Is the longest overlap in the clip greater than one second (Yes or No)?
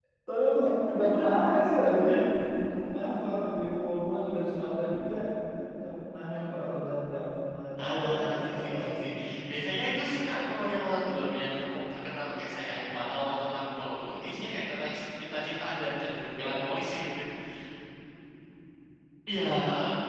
Yes